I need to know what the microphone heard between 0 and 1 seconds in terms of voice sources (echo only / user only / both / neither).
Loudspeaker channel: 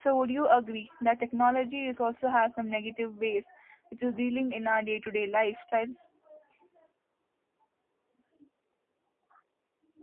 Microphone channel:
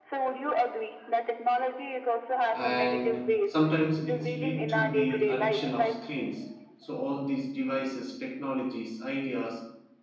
echo only